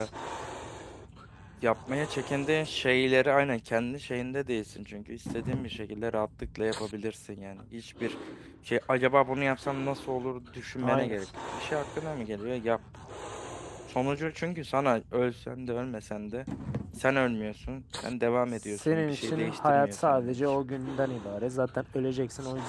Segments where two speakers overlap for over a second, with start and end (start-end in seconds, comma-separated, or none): 18.6-20.4